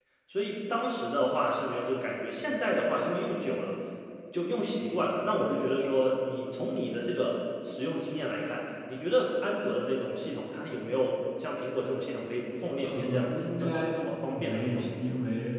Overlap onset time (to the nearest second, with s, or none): 13 s